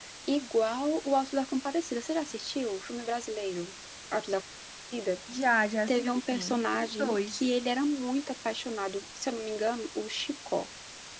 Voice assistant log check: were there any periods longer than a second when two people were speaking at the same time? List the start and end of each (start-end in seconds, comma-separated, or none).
5.9-7.5